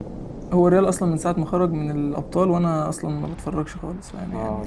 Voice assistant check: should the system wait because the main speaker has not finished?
No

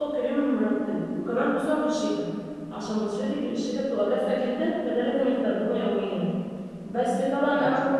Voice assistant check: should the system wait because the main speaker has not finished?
Yes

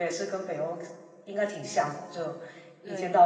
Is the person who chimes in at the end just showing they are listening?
Yes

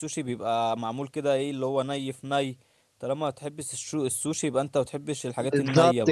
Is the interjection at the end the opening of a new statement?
Yes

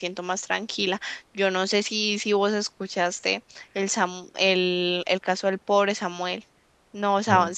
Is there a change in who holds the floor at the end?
No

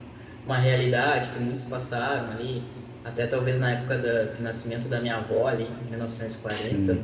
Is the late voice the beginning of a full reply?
No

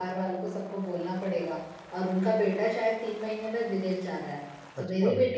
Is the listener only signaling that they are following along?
Yes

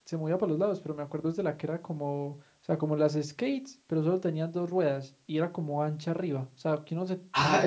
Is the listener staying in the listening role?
No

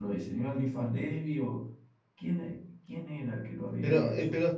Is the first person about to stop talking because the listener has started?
Yes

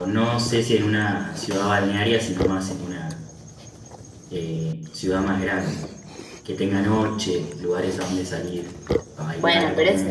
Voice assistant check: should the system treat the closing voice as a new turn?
Yes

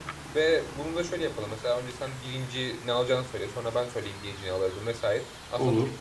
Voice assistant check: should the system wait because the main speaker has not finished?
Yes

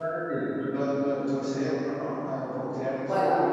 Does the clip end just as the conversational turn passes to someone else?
Yes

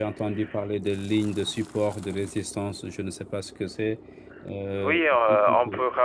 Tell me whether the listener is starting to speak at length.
Yes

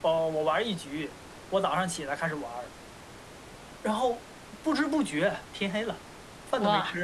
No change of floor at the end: No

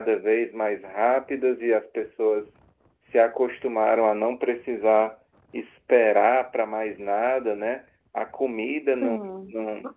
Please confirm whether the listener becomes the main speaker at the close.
No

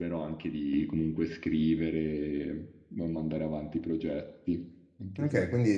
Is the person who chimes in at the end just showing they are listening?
No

